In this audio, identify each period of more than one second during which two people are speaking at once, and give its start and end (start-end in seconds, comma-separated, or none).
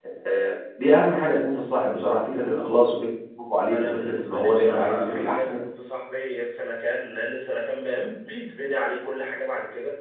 3.7-5.6